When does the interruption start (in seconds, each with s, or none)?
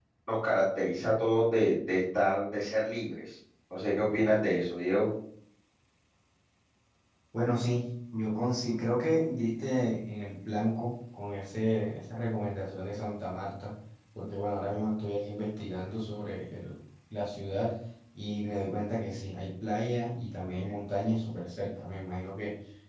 none